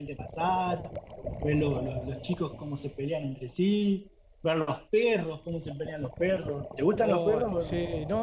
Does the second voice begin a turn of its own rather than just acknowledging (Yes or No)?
Yes